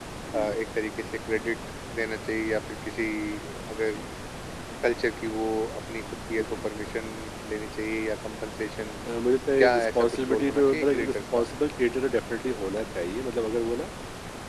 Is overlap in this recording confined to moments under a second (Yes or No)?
No